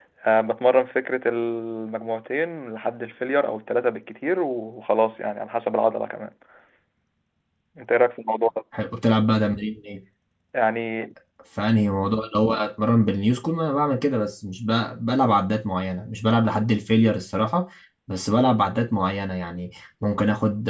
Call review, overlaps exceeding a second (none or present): none